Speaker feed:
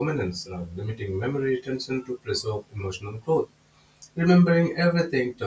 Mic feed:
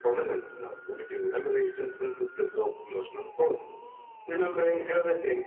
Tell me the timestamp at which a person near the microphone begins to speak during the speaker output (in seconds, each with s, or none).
none